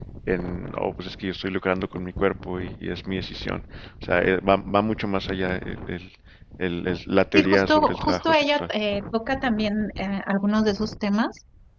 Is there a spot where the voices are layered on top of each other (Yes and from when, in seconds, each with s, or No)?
Yes, from 7.3 s